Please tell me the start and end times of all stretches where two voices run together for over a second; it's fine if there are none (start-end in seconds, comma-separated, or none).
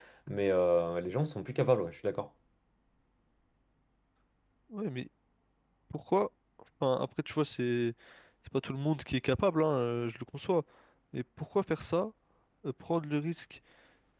none